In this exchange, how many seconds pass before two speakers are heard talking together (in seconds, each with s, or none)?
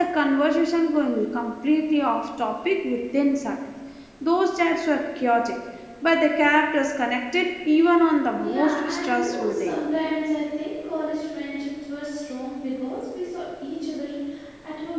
8.4 s